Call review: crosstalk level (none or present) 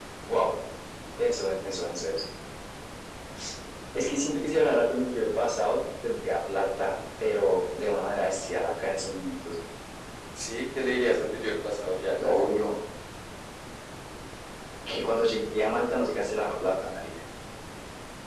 none